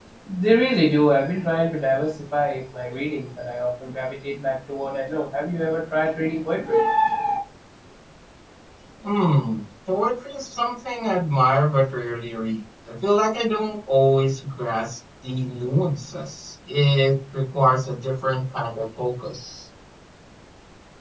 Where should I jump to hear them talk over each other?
none

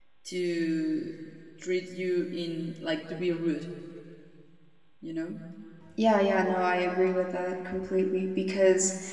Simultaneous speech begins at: none

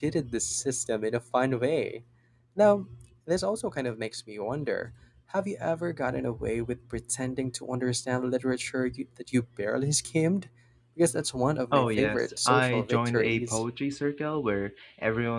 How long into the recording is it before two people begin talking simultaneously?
11.7 s

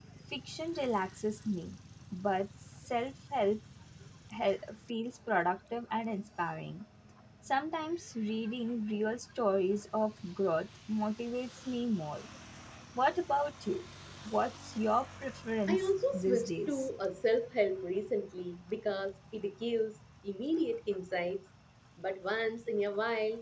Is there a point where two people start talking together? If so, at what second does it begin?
15.7 s

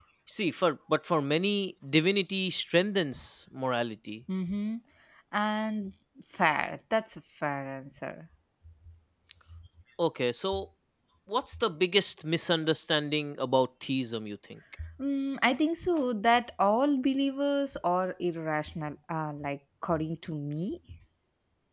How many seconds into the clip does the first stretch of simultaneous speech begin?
none

